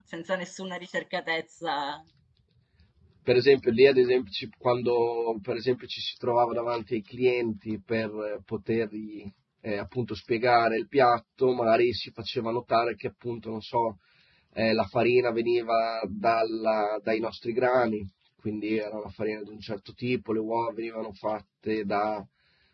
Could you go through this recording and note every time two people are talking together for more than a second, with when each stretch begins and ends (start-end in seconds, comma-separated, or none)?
none